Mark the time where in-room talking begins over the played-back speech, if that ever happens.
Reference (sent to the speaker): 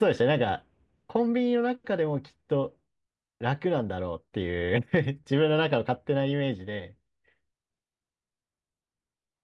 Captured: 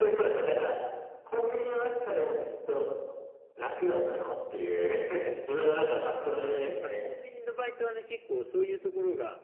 6.1 s

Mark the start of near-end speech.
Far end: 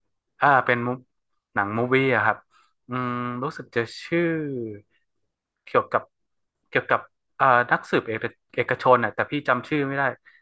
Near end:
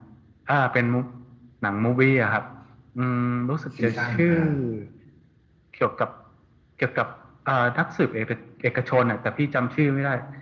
3.8 s

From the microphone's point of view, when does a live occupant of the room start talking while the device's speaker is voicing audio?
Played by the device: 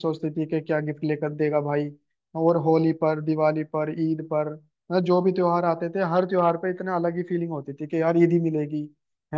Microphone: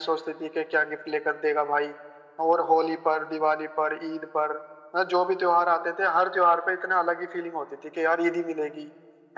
none

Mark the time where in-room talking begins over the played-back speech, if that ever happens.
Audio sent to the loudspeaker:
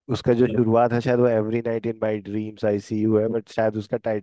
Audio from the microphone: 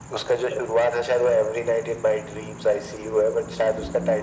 none

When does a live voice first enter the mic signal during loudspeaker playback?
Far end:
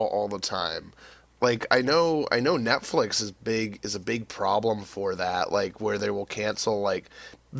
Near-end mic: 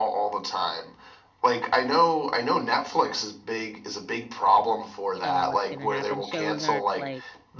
5.1 s

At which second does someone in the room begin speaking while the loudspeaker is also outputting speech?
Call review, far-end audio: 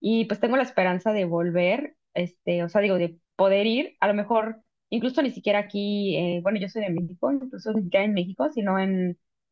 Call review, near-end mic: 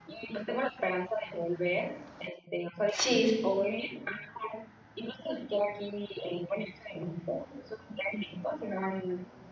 2.9 s

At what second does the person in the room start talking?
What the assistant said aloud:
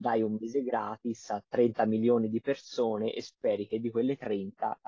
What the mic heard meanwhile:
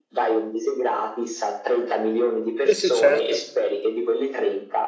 2.6 s

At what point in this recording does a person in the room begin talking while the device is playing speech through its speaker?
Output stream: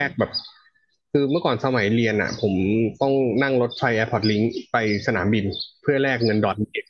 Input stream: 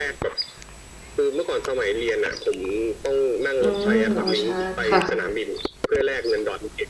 3.6 s

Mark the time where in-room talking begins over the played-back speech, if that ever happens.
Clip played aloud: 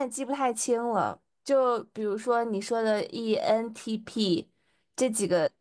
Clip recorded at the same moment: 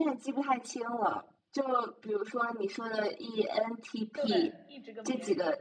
4.1 s

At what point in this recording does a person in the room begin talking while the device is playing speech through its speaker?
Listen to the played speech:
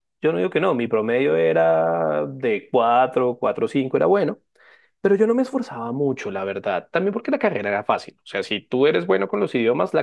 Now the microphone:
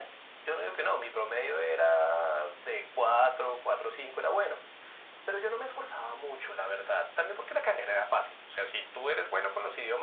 none

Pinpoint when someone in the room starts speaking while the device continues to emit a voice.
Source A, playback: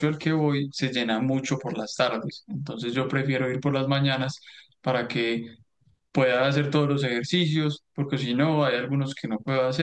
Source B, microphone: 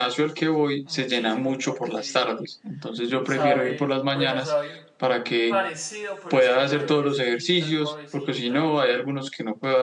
0.8 s

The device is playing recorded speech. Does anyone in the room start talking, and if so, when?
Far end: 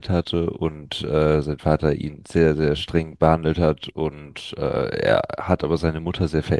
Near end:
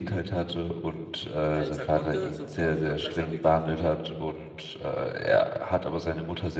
1.5 s

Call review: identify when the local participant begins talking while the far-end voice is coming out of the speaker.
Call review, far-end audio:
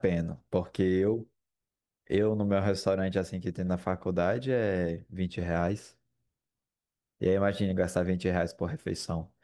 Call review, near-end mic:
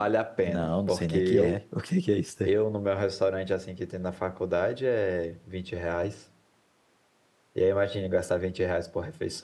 0.4 s

